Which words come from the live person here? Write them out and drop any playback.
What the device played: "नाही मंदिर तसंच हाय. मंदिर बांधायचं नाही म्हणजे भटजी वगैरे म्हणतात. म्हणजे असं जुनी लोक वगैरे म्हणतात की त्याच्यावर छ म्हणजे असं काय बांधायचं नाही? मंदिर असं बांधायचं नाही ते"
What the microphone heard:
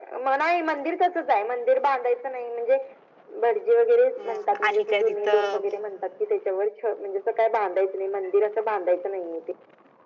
म आणि काय तिथं

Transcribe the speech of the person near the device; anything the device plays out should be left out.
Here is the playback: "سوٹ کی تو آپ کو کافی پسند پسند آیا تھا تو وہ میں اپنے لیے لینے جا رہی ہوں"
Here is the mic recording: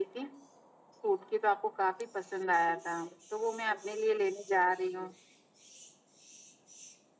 none

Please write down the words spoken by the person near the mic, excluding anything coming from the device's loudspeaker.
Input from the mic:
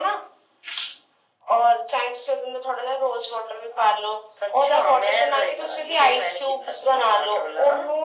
none

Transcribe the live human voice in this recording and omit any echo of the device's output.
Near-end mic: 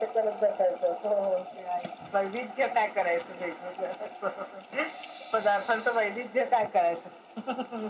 none

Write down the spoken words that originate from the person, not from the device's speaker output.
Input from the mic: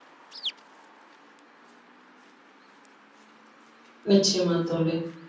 நிச்சயமா தோழி.

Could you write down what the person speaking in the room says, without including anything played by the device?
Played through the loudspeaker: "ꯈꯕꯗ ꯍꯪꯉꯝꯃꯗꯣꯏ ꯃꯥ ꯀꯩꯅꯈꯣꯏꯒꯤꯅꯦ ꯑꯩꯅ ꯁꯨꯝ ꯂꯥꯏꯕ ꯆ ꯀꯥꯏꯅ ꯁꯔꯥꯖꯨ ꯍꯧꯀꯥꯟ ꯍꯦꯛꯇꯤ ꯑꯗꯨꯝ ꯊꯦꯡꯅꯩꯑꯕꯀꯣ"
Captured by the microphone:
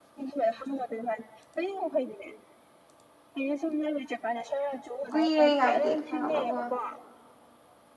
ꯀꯨꯏꯔꯦ ꯀꯥꯏꯗꯦ ꯈꯪꯉꯕꯀꯣ

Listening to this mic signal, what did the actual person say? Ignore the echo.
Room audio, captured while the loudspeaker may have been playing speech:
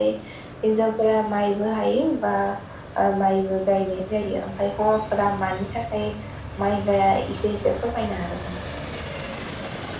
none

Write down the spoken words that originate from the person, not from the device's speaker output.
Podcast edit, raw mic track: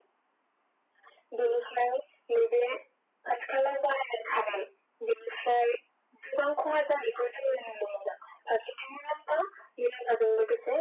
none

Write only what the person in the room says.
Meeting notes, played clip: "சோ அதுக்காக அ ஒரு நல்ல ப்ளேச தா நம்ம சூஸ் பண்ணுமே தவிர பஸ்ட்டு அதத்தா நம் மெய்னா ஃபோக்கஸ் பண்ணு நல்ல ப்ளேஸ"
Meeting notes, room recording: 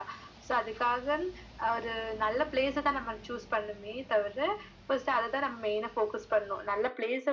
none

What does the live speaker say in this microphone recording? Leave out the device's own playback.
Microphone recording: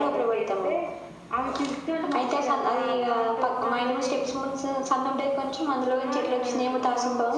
none

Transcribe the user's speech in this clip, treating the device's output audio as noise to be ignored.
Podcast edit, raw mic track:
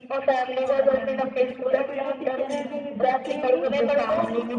ఎప్పుడైనా తిట్టారా అండి మీ ఫ్రెండ్స్ నిన్ని

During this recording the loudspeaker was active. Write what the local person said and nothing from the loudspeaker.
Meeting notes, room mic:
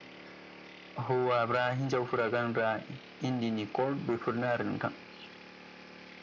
none

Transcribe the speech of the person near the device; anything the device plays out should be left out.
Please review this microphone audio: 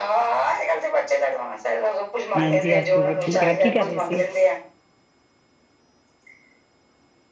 ਹਾਂਜੀ ਅਸੀਂ ਵੀ ਠੀਕ ਆ ਕੀ ਕਰ ਰਹੇ ਸੀ?

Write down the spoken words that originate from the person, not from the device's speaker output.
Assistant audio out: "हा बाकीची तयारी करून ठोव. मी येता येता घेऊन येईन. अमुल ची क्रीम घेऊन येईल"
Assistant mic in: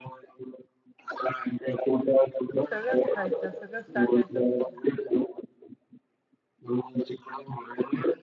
सगळंच खायचं सगळंच टाकायचं सगळं.

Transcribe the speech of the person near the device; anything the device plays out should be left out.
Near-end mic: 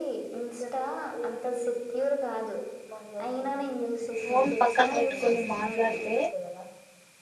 ఫోన్ పక్కన పెట్టుకొని మాట్లాడితే

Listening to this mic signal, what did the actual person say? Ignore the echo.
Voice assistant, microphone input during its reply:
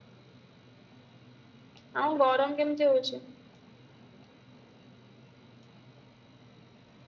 ଆଉ ଗରମ କେମିତି ହଉଛି?

